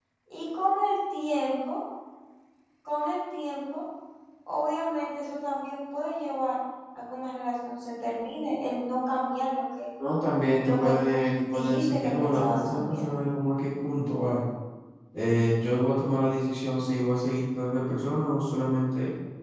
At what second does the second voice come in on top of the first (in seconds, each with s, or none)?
10.6 s